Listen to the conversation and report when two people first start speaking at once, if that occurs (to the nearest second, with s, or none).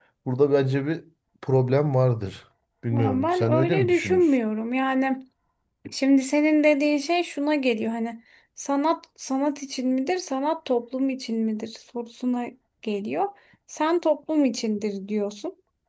3 s